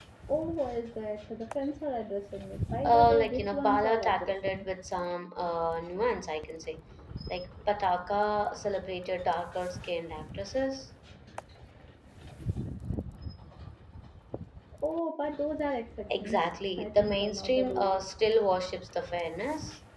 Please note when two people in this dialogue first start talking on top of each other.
3 s

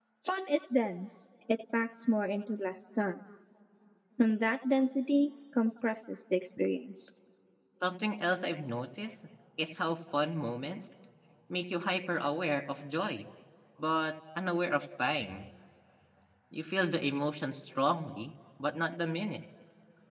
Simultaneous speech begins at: none

